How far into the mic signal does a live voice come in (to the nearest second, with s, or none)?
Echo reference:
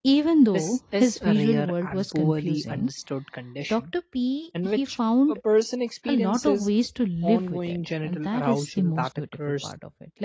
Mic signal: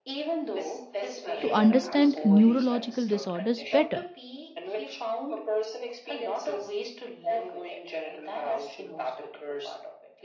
1 s